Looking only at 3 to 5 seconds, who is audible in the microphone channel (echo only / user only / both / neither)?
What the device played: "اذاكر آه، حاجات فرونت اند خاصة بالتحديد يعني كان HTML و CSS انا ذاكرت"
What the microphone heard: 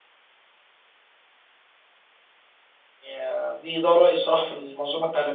user only